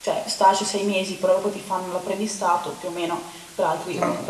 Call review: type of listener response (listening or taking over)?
listening